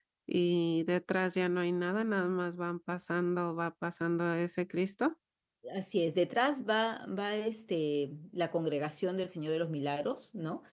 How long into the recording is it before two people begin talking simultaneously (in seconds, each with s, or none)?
none